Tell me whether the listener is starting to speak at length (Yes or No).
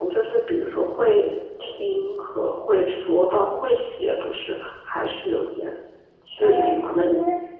Yes